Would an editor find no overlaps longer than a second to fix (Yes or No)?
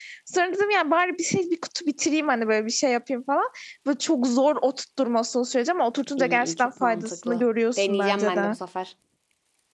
No